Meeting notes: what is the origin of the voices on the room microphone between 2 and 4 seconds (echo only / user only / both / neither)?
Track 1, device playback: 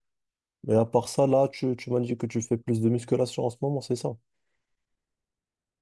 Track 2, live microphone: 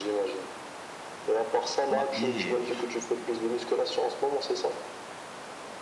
both